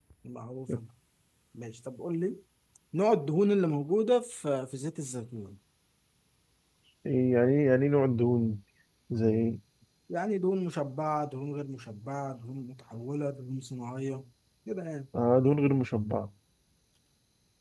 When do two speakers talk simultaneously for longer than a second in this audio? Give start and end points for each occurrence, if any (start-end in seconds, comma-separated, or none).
none